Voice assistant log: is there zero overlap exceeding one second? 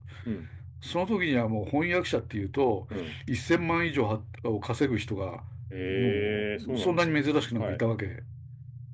No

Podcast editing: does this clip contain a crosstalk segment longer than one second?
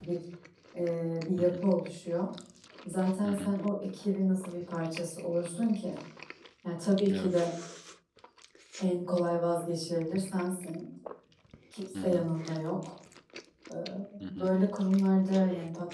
No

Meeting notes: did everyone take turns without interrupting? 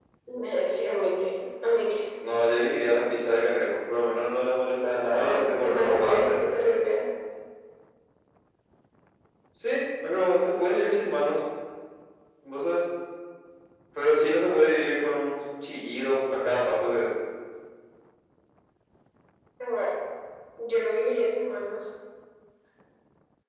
No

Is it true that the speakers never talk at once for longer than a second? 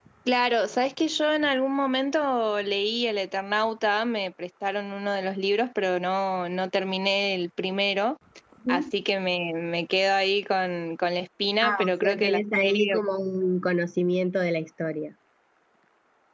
No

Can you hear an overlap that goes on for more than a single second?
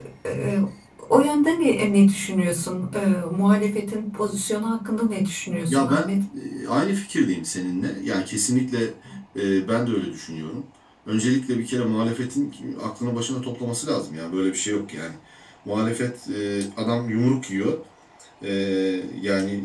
No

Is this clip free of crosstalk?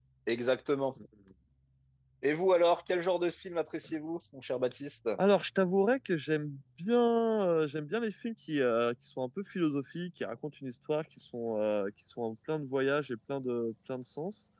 Yes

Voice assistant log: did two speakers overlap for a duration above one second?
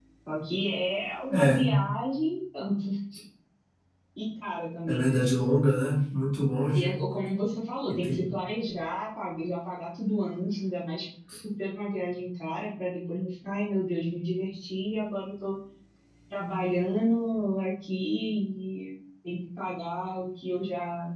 No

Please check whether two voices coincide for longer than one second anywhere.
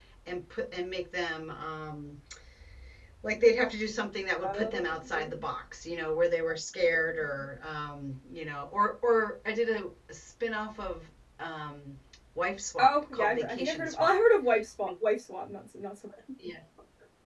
Yes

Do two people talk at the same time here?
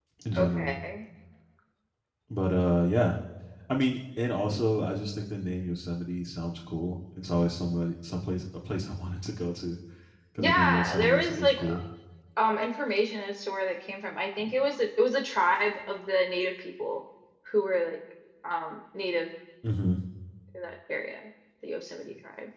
Yes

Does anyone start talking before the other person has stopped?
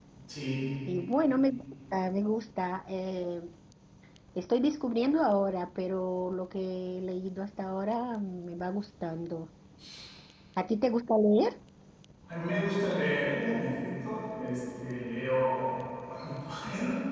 No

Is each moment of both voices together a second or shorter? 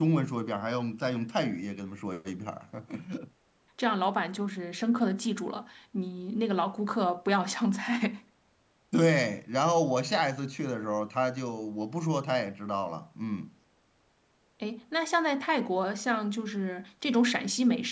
Yes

